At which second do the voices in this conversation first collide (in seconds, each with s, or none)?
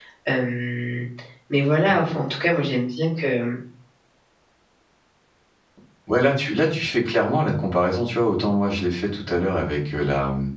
none